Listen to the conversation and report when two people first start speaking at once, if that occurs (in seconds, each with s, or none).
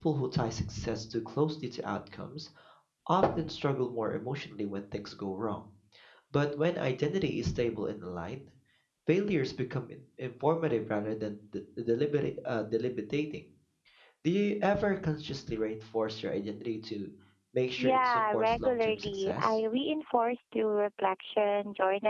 17.8 s